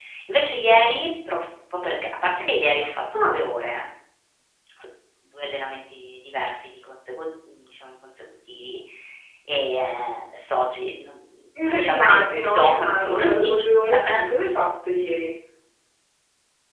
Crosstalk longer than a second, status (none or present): present